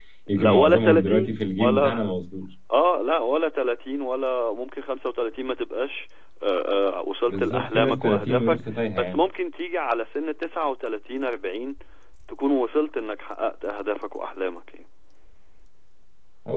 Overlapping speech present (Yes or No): Yes